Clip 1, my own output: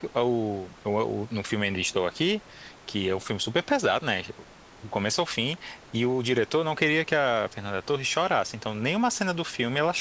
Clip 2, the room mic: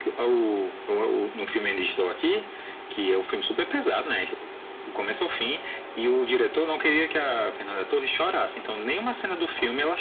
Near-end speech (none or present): none